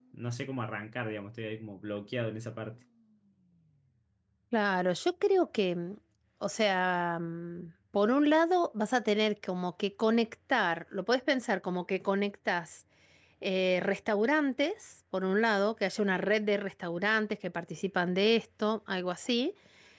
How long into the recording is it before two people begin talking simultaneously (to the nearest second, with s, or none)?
none